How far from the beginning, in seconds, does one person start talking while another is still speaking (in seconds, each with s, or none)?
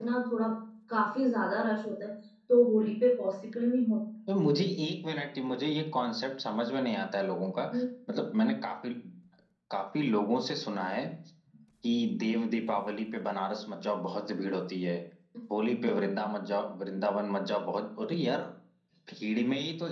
none